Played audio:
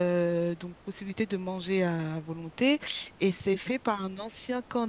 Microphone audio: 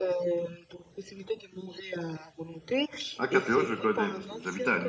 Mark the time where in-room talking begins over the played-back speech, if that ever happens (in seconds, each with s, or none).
3.2 s